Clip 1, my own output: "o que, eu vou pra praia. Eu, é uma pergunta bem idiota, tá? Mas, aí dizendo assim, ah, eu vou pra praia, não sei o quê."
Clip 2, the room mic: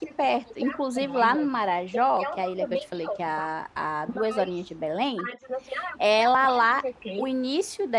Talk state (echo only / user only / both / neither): both